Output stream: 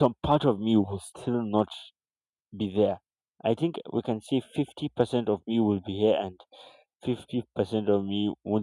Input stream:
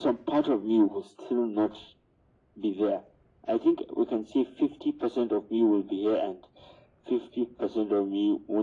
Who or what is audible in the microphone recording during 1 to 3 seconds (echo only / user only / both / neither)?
echo only